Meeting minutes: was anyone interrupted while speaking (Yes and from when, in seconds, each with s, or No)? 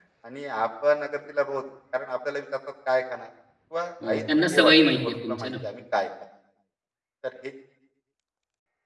Yes, from 4.0 s